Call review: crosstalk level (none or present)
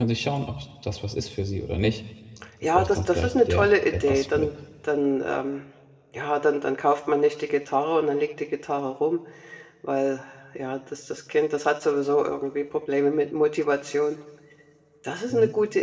present